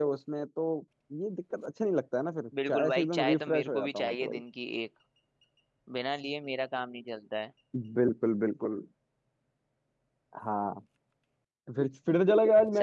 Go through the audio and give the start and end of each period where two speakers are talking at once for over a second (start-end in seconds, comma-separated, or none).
2.7-4.4